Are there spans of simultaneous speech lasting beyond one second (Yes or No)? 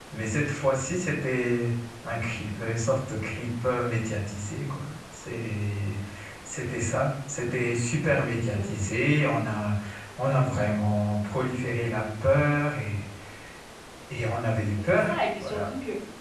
No